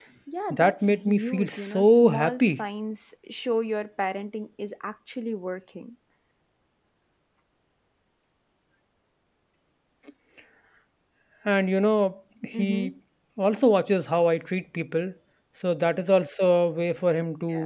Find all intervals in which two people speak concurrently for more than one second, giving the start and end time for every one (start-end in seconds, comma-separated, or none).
0.5-2.6